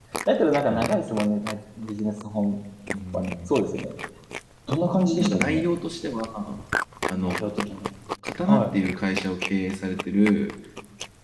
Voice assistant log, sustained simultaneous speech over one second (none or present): none